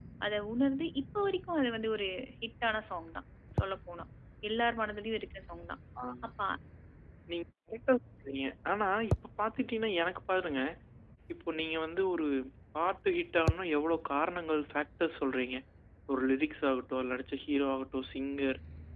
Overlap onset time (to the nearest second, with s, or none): none